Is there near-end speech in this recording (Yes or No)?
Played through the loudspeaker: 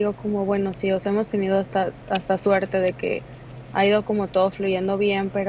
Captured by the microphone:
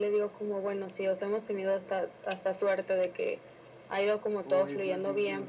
Yes